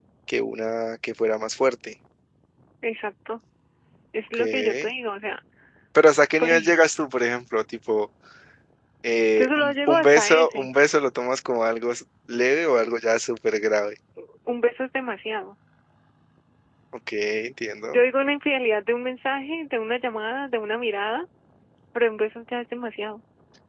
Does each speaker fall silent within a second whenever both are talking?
No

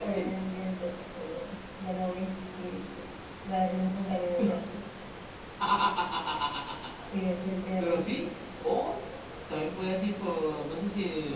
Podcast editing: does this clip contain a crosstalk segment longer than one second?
No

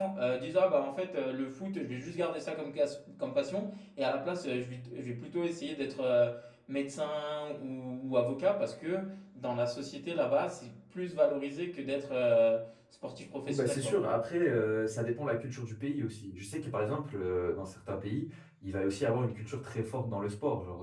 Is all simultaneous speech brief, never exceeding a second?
Yes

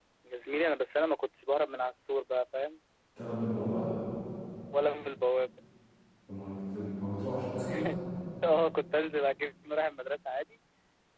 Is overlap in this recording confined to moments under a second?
Yes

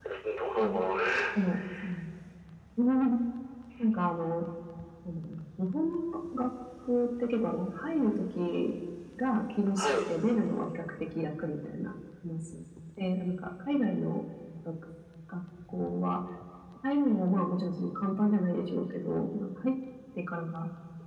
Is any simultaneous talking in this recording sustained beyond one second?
No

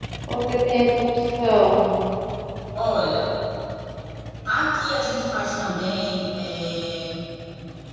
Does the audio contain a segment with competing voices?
No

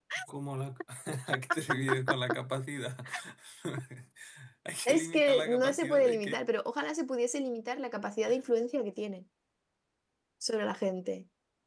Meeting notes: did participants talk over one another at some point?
Yes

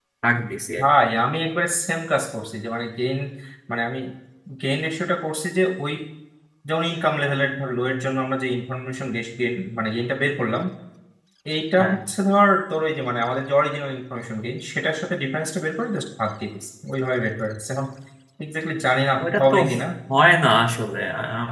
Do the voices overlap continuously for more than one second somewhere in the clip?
No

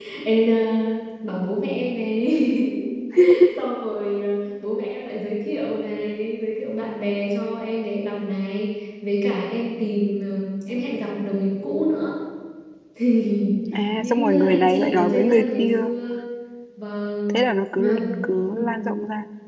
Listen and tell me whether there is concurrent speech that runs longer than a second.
Yes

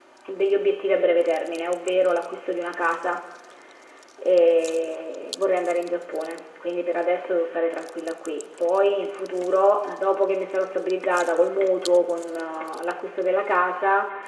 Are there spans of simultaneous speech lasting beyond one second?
No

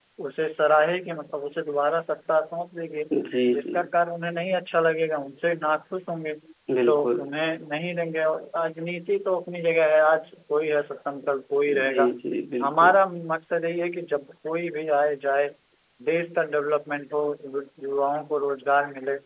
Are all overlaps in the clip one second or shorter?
Yes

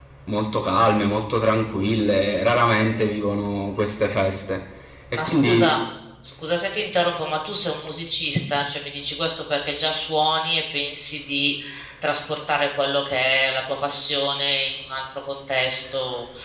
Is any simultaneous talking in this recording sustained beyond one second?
No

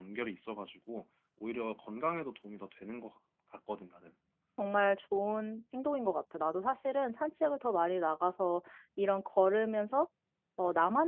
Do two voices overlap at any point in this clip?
No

